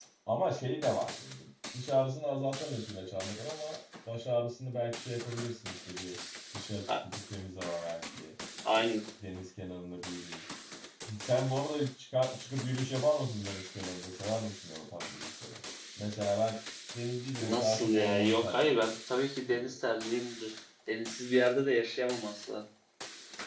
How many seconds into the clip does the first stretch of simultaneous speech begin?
17.4 s

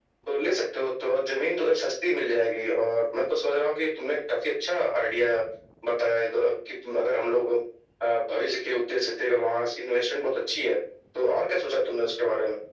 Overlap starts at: none

